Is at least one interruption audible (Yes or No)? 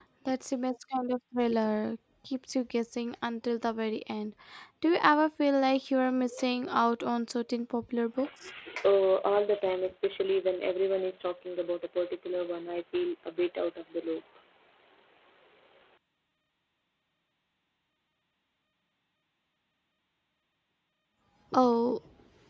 No